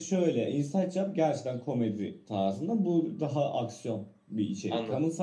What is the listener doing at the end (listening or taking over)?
listening